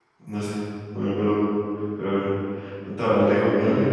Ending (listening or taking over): listening